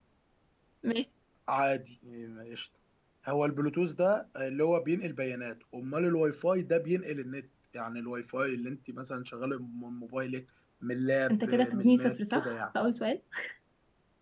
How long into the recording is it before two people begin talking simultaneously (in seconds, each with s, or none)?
11.3 s